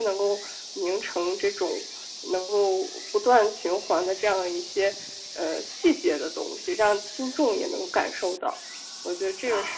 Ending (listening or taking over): taking over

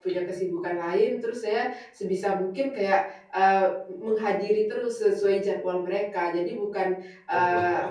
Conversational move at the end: listening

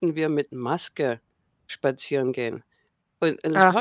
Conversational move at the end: listening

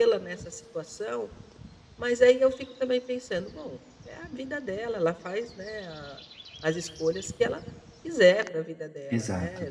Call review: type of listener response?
listening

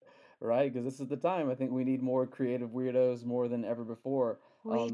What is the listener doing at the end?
listening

